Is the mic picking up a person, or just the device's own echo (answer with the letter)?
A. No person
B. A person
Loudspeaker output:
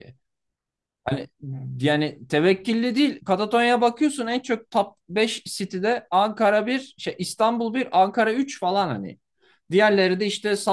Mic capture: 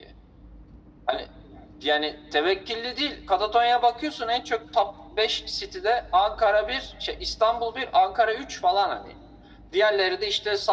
A